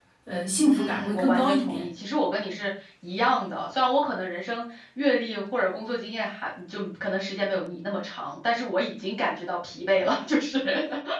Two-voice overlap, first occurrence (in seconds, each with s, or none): 0.6 s